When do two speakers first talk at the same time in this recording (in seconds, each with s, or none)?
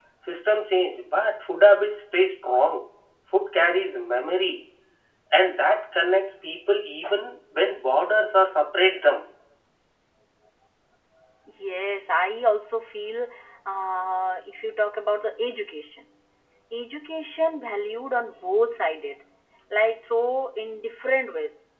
none